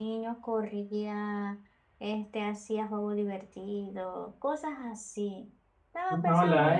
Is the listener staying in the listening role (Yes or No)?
No